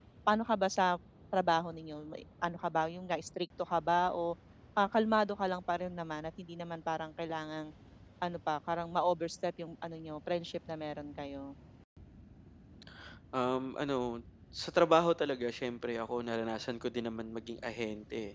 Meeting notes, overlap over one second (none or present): none